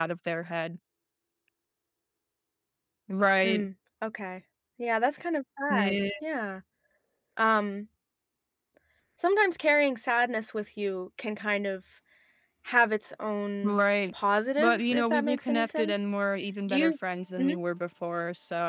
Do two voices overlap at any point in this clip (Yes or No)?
Yes